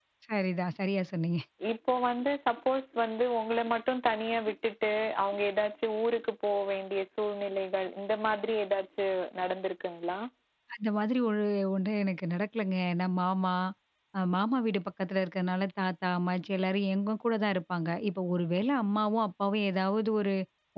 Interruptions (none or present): none